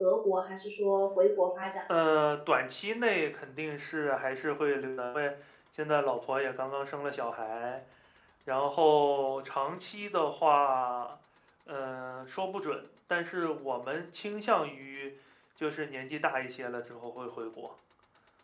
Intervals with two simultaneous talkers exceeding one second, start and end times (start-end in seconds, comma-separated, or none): none